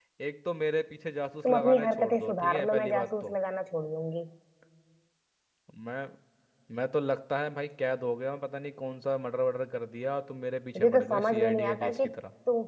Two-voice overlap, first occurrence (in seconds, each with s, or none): 1.4 s